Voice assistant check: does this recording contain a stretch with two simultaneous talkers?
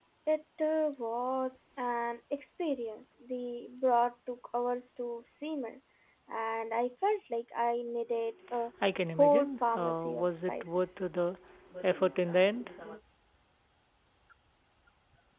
Yes, from 9.2 s

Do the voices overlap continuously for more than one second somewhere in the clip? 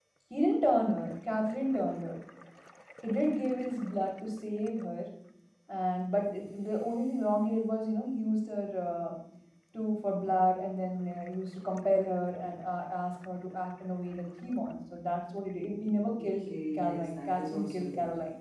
Yes, from 16.2 s

